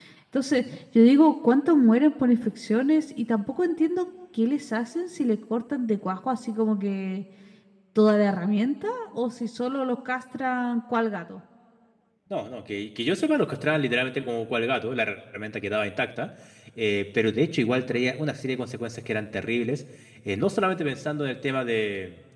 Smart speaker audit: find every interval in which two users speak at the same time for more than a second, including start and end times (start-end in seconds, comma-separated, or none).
none